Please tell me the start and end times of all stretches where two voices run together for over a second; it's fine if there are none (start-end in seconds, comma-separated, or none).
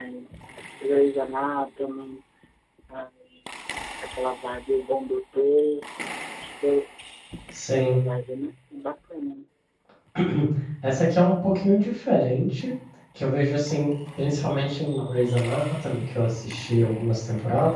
none